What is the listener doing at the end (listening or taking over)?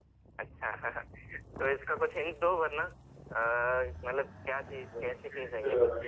taking over